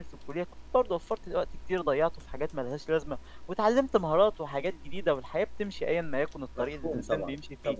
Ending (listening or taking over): taking over